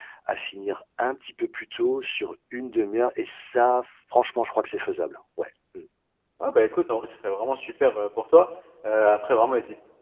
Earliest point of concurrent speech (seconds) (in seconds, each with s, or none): none